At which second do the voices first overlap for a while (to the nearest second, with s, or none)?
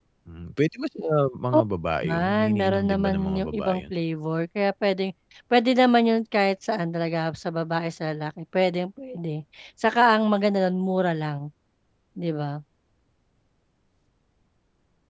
2 s